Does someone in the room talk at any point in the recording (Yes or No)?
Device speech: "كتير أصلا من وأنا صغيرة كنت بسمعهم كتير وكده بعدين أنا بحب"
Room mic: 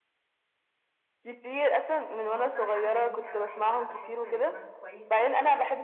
Yes